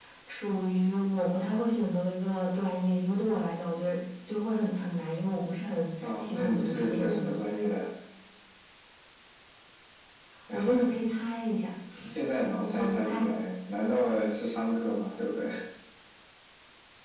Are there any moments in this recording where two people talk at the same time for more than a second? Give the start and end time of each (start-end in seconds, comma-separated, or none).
6.0-7.3